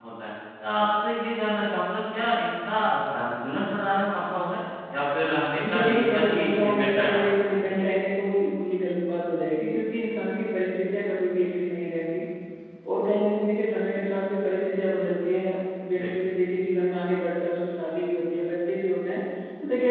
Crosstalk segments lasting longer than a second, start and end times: 5.6-7.6

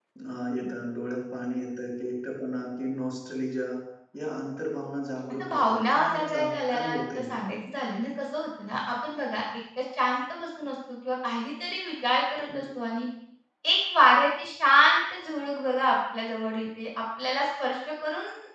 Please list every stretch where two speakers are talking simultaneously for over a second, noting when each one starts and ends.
5.3-7.4

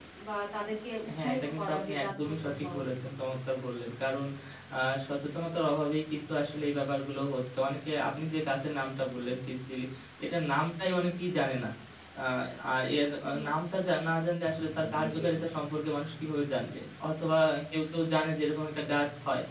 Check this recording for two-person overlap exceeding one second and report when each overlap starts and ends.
1.1-2.8

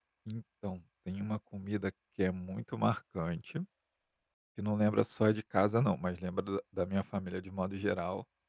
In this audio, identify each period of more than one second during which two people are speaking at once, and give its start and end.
none

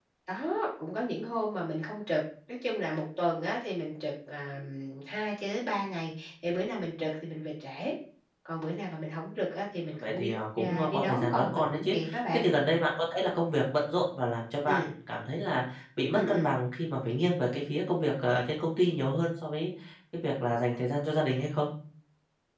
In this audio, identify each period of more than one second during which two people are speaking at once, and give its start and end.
10.0-11.9

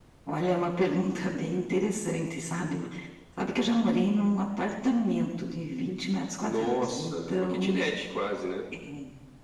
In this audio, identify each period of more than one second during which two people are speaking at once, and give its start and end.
6.4-7.8

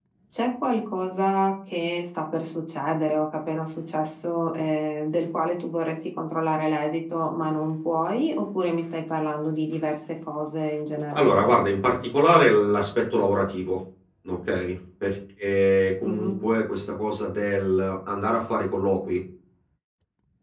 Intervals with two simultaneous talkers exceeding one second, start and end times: none

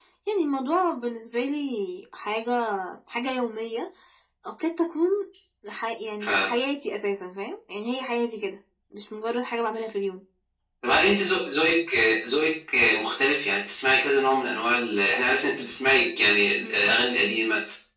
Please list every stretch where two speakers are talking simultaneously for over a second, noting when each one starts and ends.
none

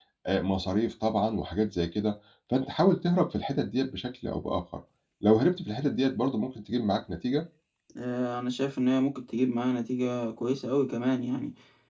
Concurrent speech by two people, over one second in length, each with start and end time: none

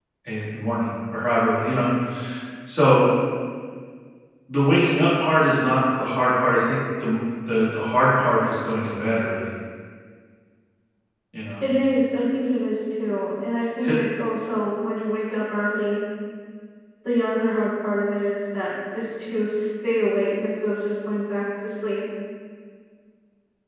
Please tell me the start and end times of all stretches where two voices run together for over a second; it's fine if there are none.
none

